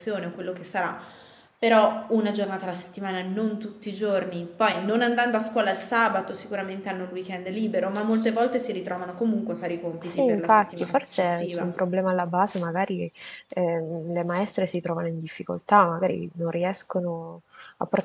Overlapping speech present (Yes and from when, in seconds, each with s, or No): Yes, from 10.0 s